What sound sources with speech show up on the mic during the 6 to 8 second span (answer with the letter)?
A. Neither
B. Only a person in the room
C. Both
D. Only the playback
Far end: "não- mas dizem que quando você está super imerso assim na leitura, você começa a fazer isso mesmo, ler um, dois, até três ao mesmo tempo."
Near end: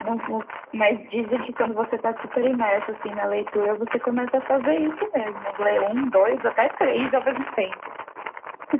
D